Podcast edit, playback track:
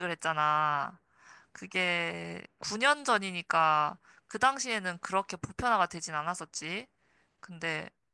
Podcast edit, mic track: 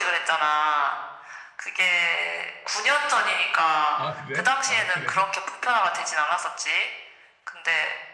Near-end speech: present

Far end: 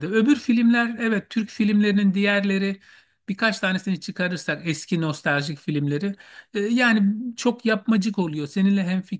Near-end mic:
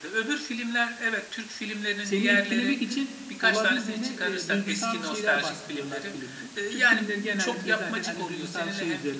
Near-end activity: present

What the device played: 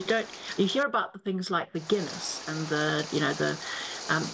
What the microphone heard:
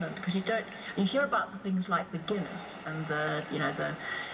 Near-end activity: none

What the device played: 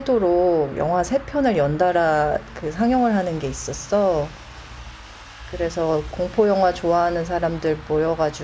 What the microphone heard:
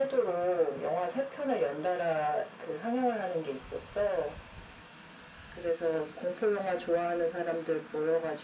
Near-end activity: none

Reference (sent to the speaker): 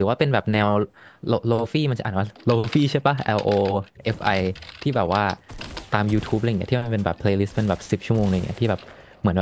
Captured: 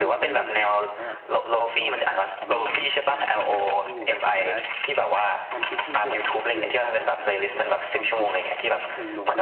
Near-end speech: present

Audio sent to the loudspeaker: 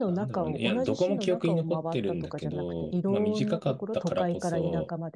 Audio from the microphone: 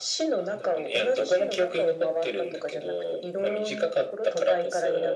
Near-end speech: none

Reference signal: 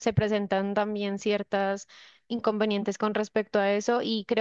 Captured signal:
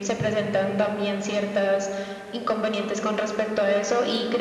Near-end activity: none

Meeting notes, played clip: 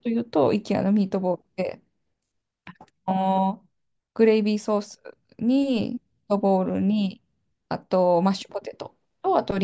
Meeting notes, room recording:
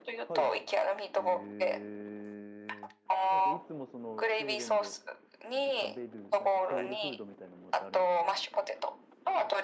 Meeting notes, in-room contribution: present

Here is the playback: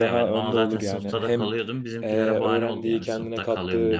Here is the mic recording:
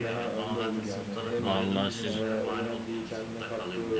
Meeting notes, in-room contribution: present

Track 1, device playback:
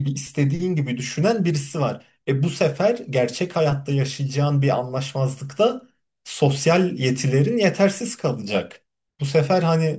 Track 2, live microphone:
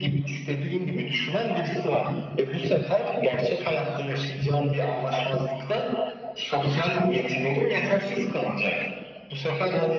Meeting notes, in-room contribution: none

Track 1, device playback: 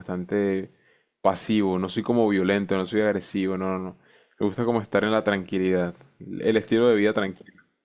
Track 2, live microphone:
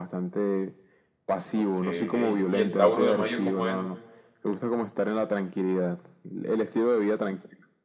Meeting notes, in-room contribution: present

